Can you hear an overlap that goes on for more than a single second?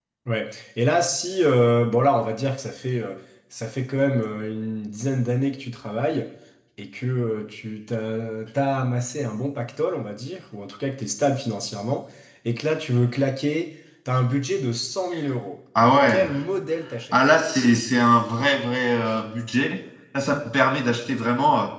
No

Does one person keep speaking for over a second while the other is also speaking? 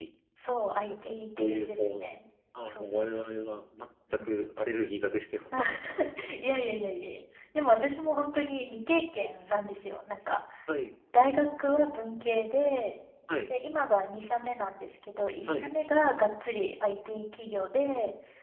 Yes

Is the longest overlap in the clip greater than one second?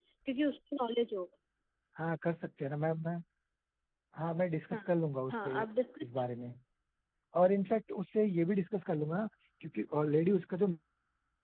No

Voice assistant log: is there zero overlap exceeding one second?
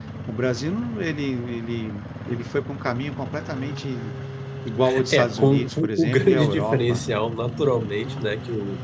No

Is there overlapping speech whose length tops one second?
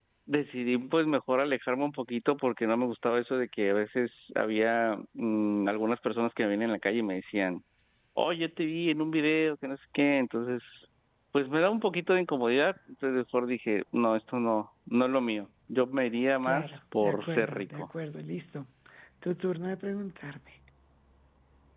Yes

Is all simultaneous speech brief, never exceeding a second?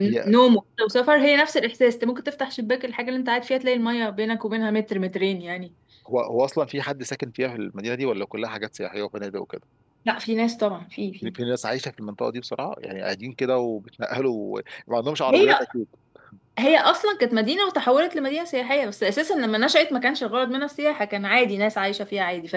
Yes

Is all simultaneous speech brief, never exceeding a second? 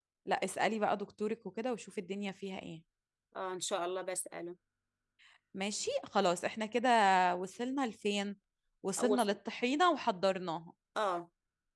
Yes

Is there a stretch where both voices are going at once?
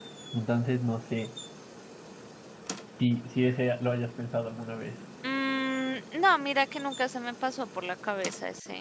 No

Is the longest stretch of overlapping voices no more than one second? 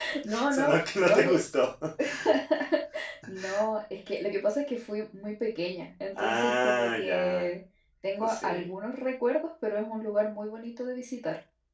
No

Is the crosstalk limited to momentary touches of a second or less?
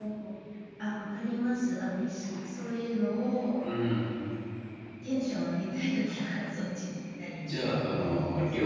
No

